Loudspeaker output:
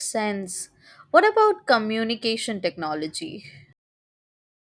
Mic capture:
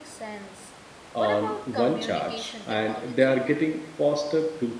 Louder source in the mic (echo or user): user